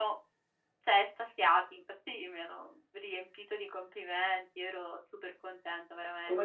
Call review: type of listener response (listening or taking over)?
taking over